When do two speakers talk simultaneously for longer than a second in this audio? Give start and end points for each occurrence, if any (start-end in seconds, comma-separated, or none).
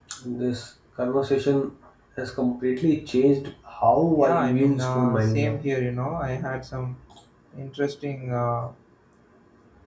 4.1-5.6